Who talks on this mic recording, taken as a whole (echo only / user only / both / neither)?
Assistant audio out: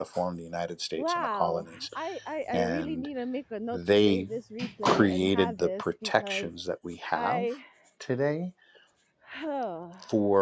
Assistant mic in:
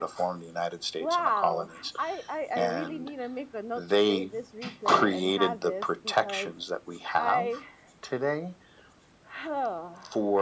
echo only